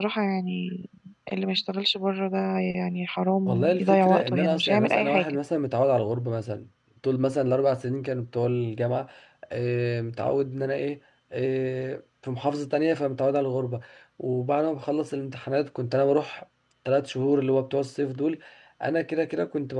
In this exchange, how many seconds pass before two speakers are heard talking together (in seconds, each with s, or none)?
3.5 s